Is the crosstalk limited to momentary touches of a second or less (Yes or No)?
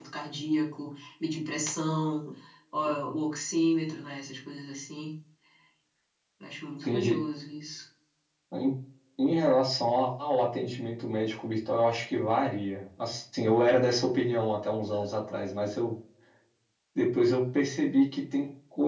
Yes